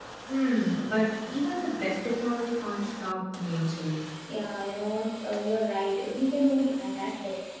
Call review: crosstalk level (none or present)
none